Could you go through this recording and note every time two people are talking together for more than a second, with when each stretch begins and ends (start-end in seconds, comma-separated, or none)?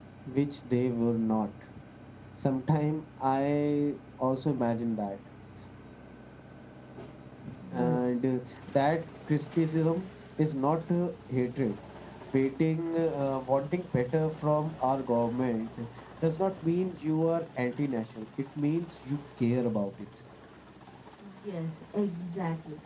7.7-8.9